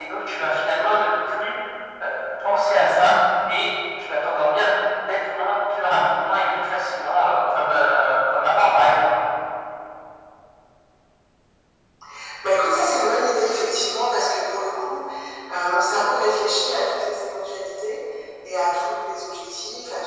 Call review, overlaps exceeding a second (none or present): none